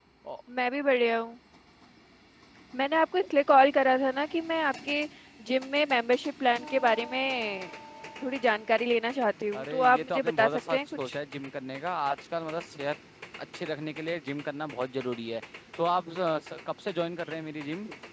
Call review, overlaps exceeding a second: present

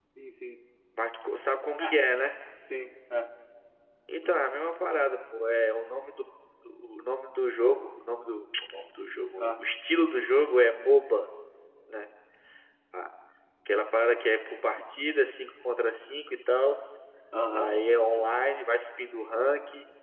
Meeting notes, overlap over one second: none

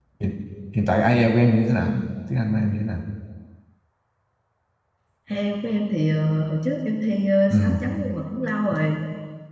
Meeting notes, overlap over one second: none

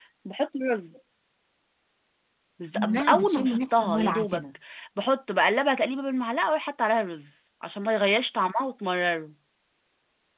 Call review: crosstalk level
present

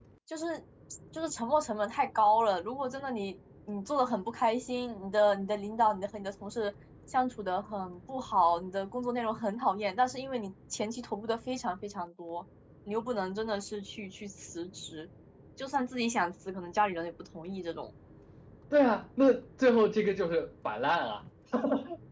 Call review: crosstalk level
none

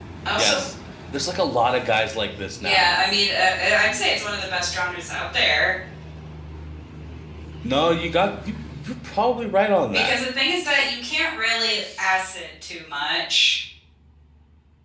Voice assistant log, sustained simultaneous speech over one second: none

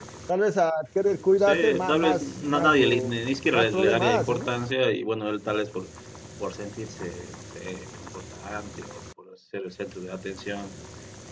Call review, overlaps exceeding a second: present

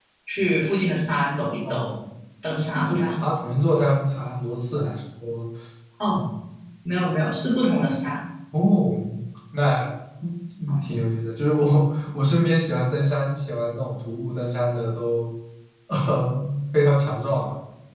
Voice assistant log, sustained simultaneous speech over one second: none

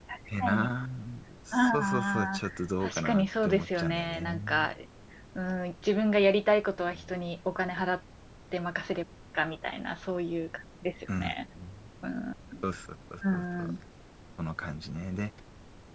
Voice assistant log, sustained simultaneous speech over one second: present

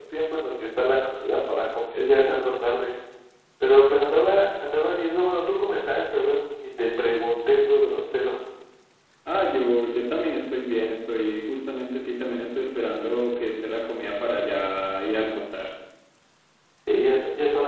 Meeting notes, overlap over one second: none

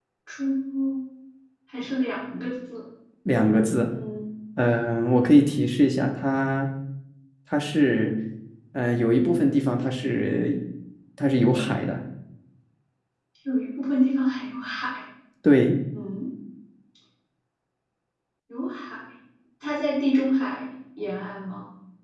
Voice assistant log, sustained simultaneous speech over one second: none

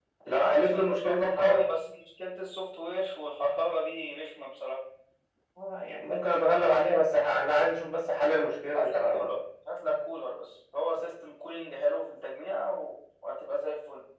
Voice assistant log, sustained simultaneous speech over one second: present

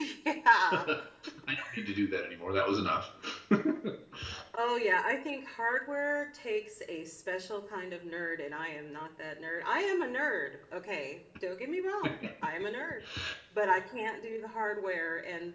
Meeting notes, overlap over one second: none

